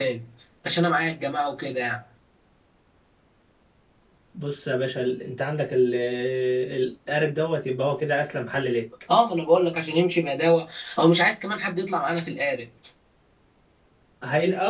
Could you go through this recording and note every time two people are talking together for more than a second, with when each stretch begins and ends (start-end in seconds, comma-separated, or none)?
none